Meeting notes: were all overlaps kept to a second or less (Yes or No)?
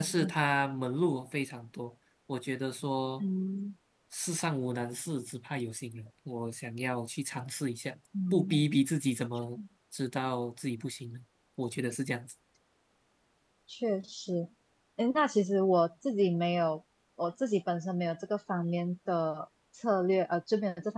Yes